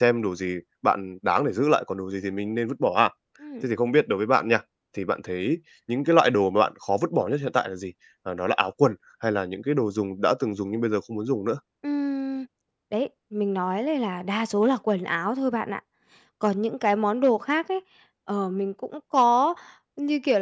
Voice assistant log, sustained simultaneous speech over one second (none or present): none